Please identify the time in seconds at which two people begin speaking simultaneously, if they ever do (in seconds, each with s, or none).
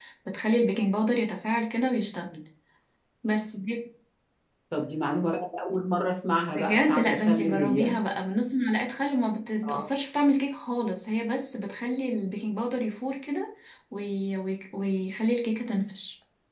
6.5 s